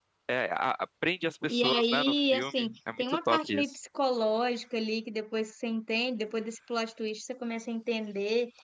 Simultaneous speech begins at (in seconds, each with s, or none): 1.5 s